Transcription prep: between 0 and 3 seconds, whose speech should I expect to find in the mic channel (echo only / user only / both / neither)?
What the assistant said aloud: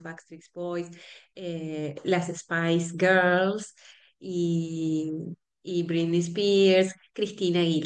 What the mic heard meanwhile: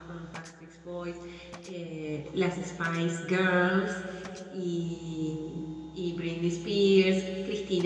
echo only